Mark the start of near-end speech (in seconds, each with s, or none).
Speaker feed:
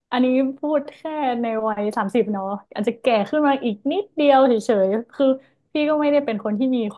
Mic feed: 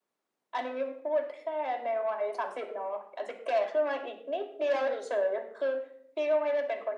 none